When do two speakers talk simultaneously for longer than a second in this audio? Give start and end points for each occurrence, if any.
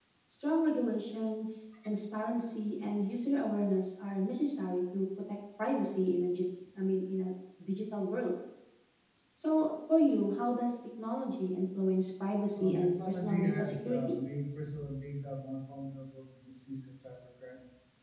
12.6-14.2

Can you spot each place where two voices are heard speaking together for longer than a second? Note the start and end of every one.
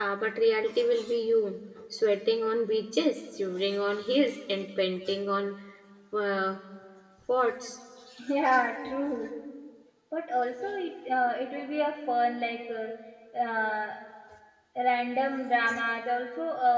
none

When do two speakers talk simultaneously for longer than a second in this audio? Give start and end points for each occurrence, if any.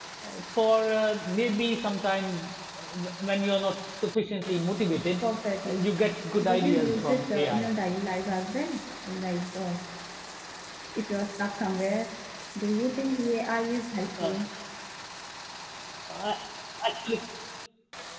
6.5-7.7

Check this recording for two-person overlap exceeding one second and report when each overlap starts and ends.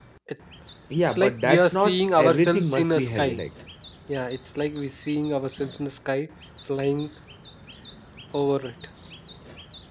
1.0-3.4

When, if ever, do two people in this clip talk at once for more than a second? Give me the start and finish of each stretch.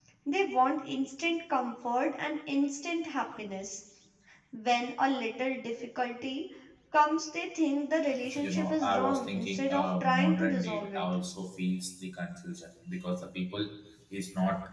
8.4-11.0

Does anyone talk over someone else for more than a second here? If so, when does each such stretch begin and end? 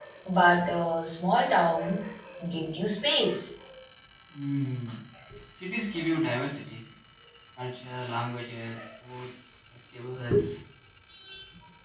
none

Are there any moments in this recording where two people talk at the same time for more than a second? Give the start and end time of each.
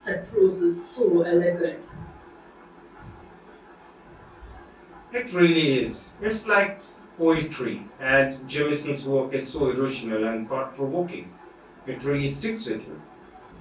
none

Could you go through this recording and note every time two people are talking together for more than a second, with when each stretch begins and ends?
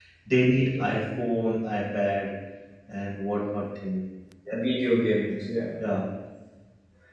none

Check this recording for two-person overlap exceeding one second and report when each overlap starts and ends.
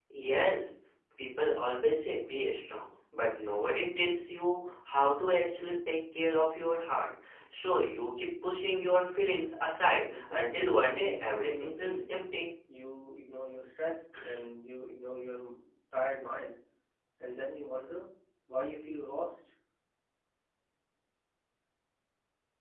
10.1-12.0

